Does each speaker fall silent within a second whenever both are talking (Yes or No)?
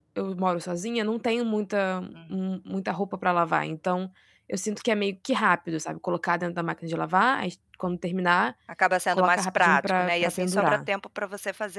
No